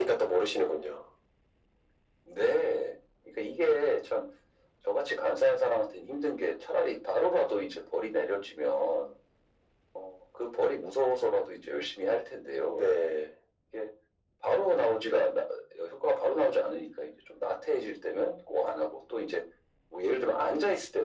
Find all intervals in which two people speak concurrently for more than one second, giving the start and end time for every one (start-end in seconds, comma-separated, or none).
none